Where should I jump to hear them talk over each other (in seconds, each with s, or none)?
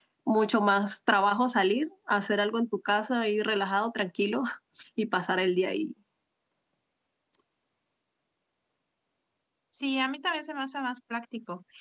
none